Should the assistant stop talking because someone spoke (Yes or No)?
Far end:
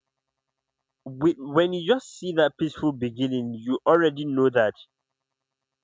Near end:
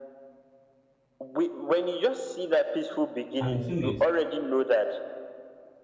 Yes